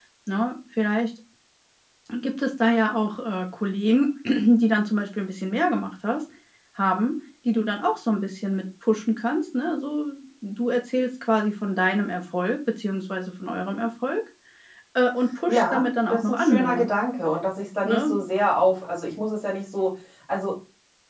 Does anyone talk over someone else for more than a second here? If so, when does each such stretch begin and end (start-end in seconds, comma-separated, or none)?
15.5-16.9